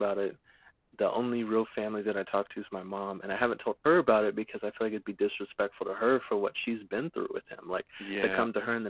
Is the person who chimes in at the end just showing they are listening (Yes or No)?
Yes